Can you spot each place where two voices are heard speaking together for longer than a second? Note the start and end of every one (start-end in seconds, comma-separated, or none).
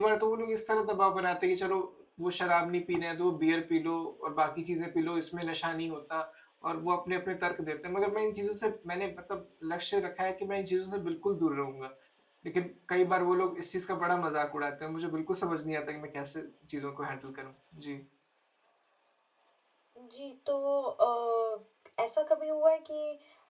none